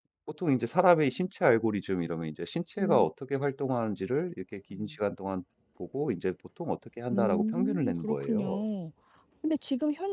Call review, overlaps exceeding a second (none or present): present